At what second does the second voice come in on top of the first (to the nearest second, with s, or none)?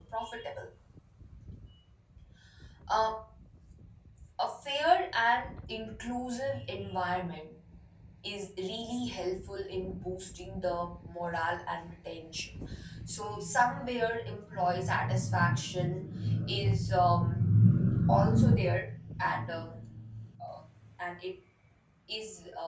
none